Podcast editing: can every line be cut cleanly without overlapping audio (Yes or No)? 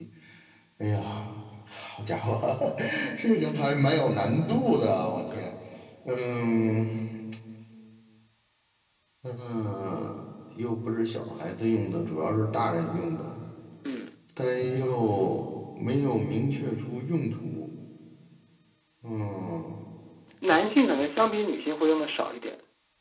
Yes